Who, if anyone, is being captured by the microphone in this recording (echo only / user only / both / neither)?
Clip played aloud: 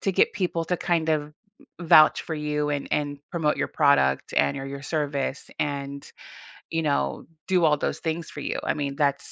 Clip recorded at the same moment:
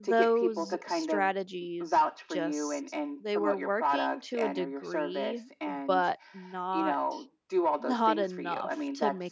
both